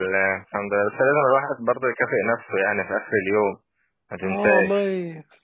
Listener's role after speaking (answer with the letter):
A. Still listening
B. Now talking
B